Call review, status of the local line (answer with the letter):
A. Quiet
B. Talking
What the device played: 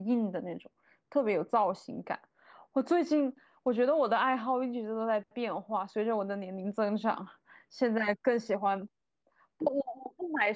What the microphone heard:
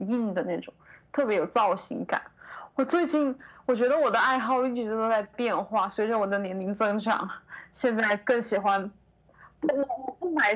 A